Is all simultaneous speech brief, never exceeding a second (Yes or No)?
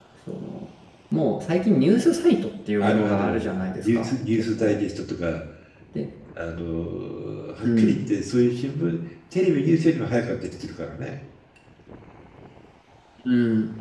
No